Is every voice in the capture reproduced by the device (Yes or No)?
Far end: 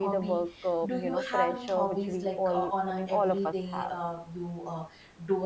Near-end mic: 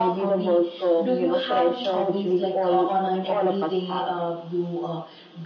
Yes